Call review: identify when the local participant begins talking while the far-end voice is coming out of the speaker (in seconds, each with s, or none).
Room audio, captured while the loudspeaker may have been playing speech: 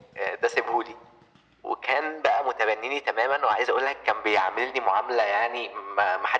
none